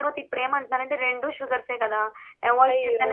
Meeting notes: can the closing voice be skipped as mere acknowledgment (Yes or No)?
No